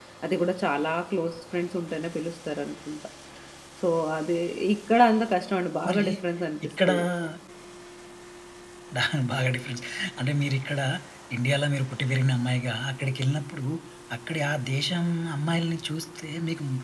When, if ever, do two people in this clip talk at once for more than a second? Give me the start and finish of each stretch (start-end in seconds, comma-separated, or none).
none